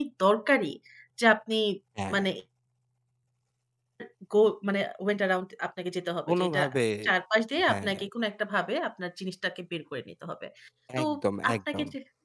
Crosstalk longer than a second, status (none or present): none